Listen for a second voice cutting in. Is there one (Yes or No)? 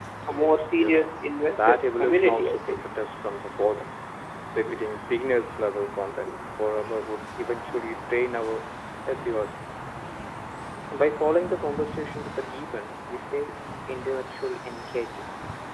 Yes